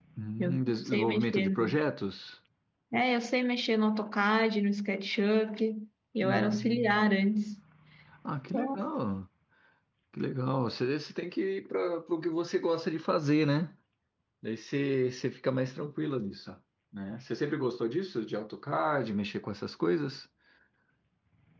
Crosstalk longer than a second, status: present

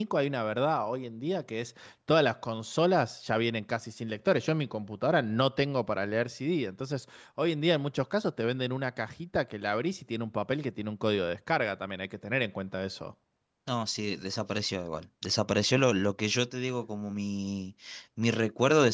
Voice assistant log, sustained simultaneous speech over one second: none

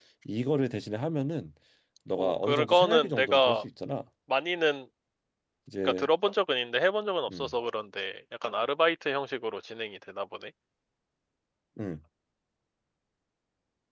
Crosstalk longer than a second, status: present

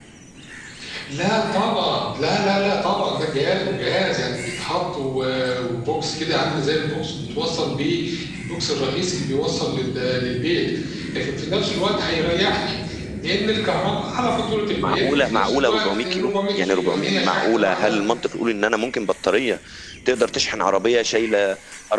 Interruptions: present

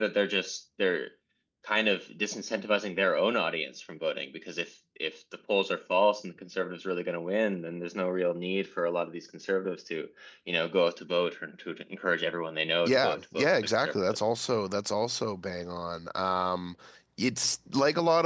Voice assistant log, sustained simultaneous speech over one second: present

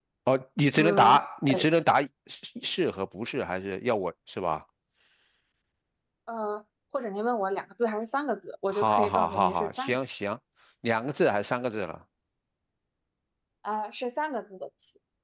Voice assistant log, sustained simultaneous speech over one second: present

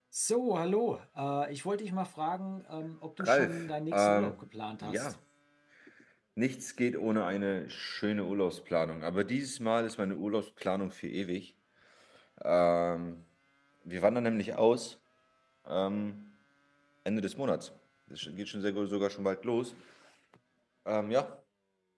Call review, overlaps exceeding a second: present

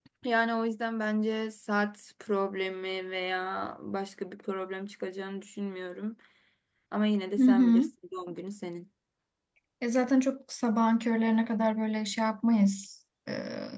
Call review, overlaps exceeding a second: none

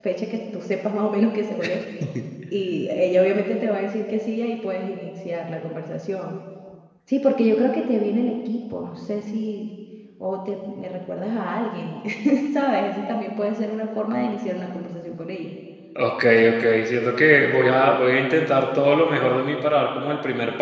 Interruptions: none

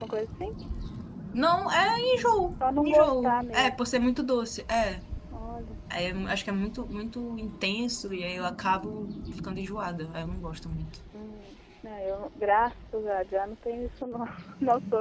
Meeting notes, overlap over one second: present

